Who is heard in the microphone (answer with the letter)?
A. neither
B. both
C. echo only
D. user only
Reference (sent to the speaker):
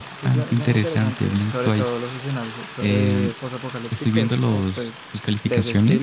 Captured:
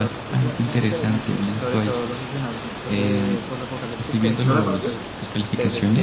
B